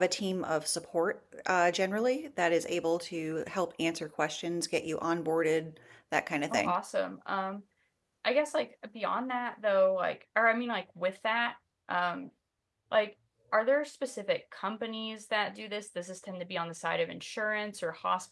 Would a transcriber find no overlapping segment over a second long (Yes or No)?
Yes